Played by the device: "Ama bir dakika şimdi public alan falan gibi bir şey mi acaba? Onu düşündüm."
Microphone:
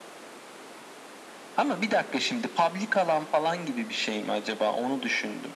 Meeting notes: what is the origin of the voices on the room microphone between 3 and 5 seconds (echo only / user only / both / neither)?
echo only